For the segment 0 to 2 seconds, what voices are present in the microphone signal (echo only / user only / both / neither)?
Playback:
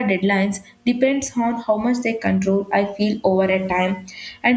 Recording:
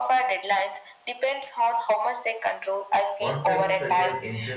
echo only